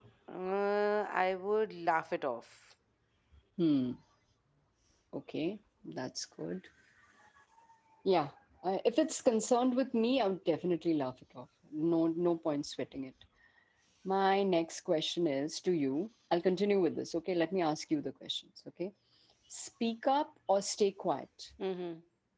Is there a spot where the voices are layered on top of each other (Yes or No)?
No